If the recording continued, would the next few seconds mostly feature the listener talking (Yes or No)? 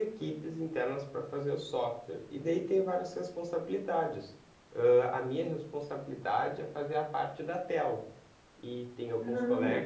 No